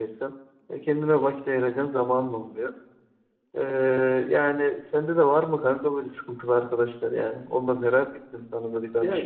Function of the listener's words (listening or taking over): taking over